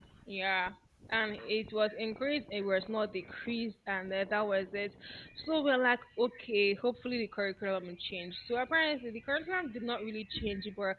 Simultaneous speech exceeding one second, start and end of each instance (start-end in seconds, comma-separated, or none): none